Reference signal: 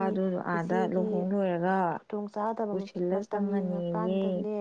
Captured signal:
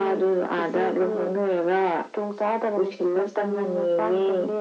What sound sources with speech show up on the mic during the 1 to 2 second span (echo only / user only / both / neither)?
echo only